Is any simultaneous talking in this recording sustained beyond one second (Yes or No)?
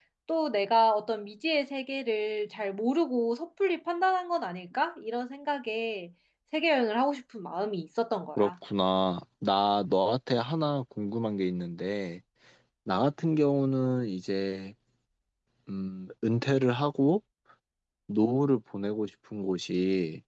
No